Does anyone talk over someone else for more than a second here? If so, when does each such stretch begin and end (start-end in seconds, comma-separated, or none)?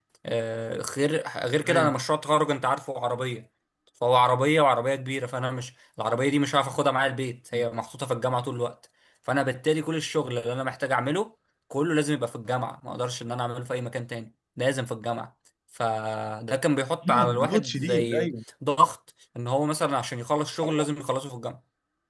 17.1-18.3